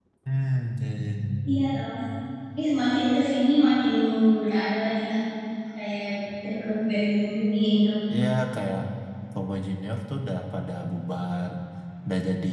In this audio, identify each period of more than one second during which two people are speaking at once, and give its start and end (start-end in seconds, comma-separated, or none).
none